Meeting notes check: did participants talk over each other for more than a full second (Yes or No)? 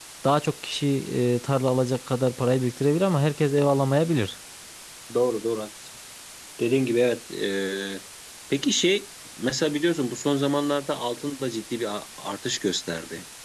No